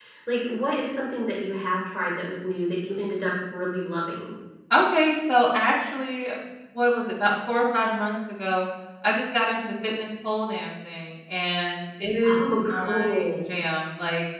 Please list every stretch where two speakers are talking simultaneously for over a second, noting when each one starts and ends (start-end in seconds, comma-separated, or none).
12.2-13.6